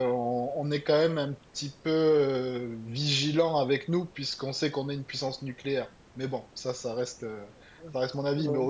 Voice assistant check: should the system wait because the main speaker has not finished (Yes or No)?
Yes